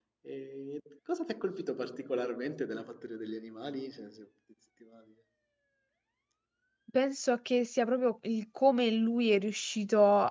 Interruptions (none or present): none